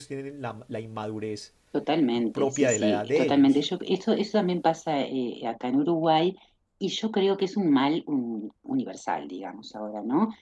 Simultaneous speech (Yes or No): Yes